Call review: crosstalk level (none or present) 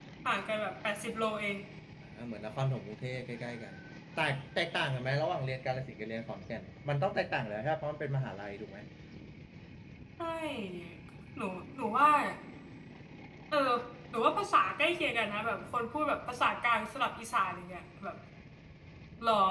none